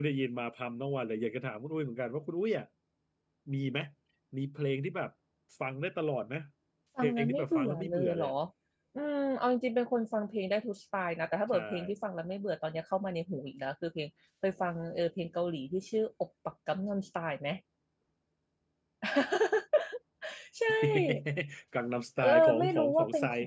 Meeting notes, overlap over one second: present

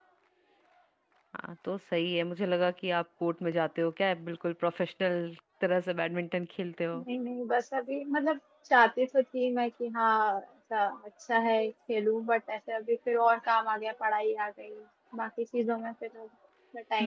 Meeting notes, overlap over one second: none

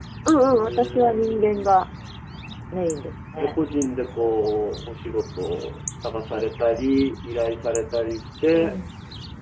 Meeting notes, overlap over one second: present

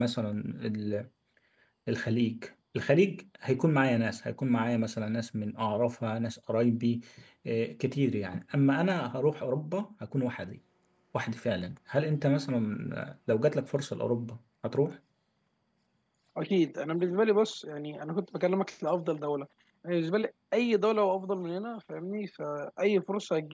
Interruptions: none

